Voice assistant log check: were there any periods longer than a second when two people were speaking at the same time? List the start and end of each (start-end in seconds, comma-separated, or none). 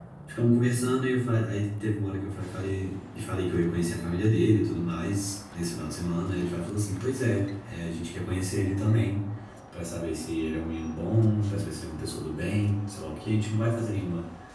none